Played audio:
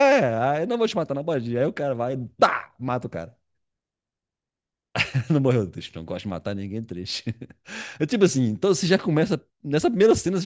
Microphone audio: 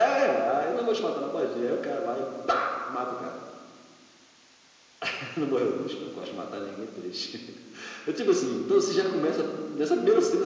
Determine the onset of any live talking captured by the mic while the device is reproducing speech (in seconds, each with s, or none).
none